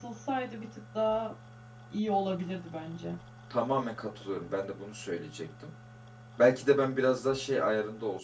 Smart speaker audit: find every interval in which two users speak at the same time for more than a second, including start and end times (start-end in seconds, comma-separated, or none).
none